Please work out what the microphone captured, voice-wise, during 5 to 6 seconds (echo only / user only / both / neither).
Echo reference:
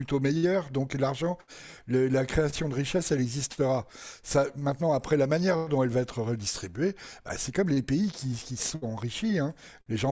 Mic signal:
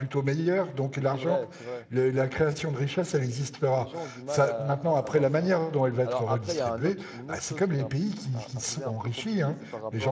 both